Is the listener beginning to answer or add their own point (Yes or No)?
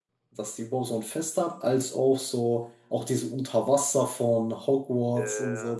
No